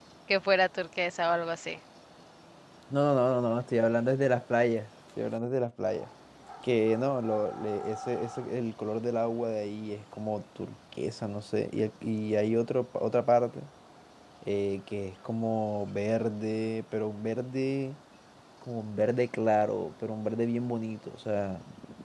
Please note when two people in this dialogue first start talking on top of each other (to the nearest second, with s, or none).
none